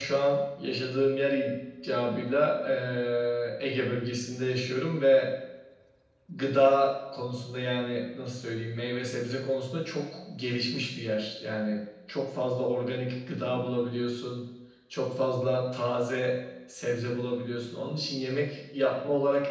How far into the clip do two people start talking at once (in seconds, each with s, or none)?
none